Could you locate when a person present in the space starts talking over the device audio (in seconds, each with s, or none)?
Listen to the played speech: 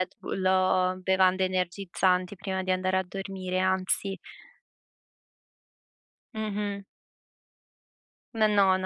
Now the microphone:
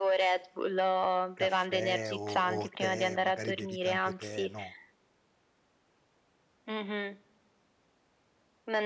1.4 s